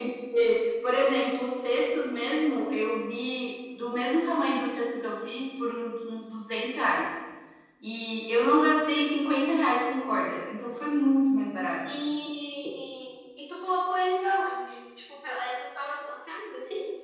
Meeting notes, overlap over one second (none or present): none